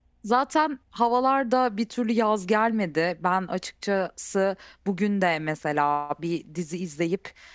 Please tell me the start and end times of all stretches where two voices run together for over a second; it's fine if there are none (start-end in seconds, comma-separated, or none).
none